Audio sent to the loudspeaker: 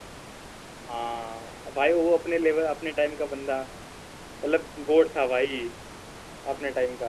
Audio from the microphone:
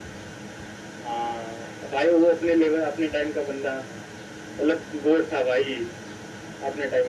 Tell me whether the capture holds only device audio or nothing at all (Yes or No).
Yes